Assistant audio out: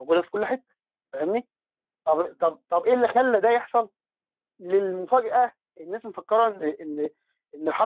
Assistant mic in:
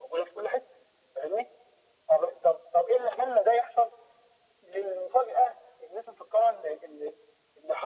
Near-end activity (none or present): none